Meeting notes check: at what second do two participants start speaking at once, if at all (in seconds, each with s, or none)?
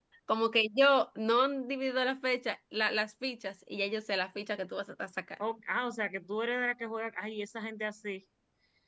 none